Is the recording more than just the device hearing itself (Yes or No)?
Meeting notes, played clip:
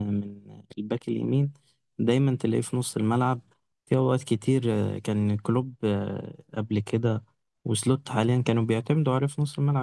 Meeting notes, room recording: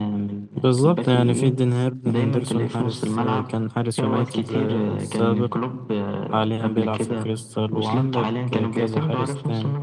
Yes